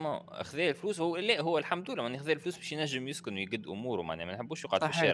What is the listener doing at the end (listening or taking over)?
taking over